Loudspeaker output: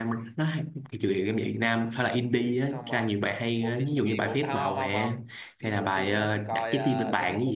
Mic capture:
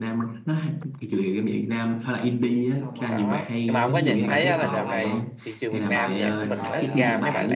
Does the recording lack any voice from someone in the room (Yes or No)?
No